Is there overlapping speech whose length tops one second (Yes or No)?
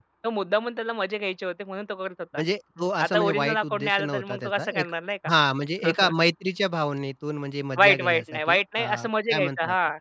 Yes